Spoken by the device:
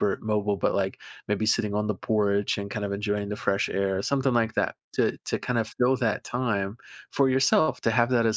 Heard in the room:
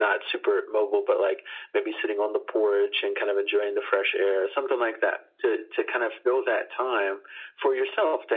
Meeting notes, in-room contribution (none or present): none